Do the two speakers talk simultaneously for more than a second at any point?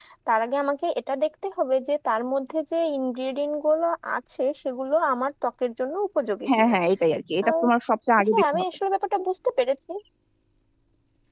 No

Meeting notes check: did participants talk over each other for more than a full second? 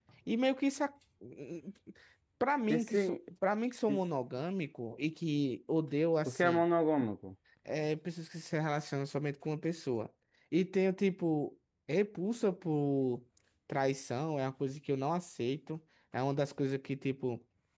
No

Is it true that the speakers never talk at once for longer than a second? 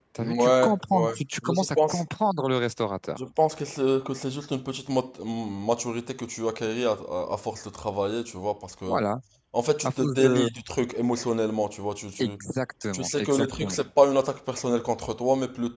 No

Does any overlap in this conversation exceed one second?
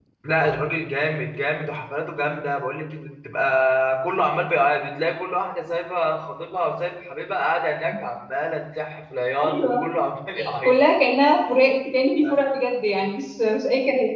No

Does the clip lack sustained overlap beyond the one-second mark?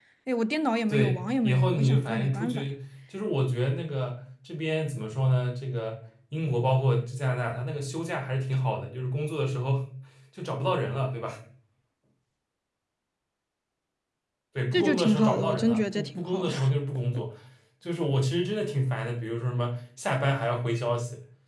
No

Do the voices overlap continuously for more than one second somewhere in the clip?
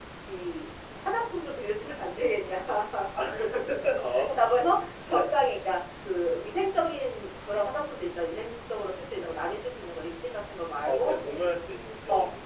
No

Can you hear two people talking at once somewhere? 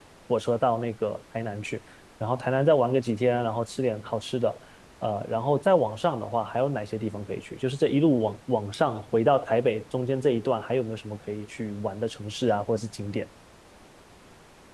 No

